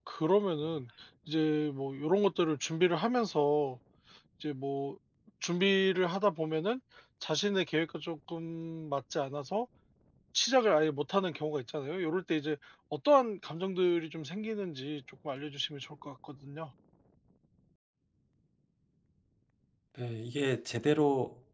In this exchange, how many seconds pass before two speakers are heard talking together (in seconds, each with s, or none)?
none